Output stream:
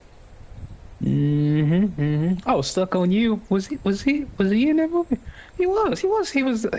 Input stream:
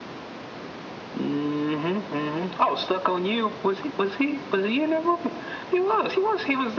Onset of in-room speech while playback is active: none

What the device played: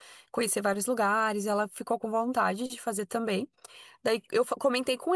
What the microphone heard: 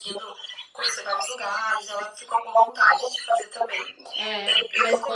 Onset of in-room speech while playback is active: 4.1 s

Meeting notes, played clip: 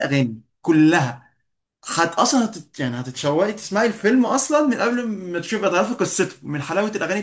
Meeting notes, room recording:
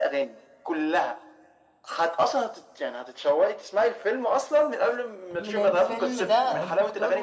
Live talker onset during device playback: 5.4 s

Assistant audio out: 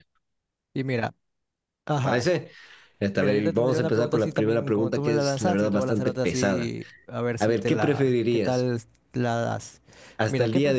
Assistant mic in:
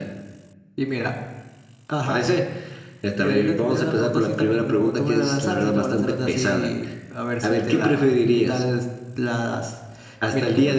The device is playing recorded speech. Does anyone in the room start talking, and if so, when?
none

